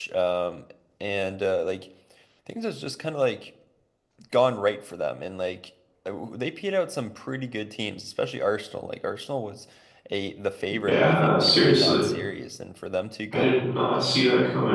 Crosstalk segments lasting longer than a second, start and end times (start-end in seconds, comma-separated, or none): 10.9-12.1